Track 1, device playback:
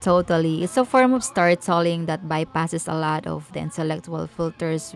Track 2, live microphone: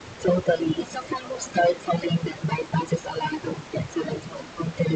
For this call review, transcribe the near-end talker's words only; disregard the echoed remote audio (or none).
none